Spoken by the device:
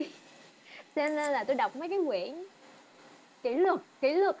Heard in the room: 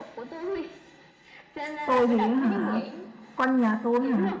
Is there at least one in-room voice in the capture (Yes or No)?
Yes